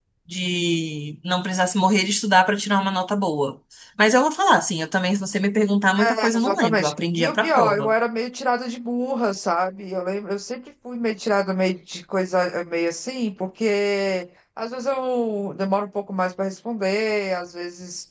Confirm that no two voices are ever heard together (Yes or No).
No